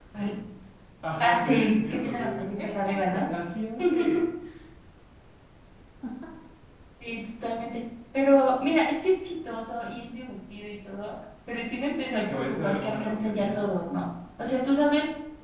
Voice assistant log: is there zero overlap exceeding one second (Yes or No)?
No